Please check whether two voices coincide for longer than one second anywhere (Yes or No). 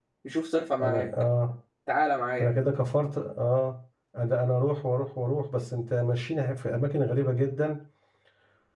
No